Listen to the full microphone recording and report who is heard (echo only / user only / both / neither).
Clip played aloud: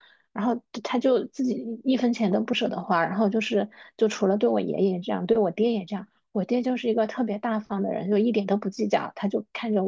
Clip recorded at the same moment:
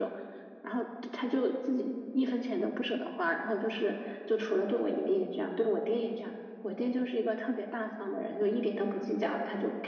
echo only